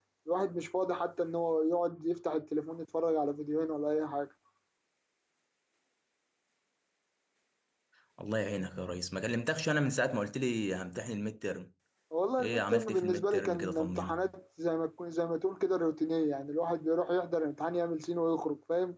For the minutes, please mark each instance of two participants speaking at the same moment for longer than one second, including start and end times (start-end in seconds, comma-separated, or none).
12.4-14.2